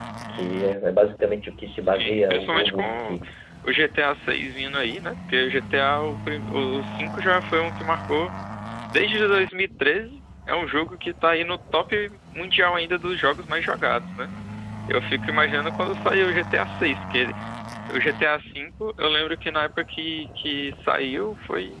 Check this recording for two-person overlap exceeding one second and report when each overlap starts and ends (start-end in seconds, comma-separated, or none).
1.9-3.2